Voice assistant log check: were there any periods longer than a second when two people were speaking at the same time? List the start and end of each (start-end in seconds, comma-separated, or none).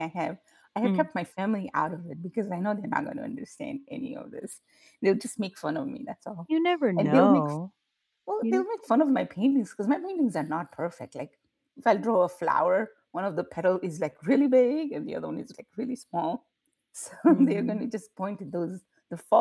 none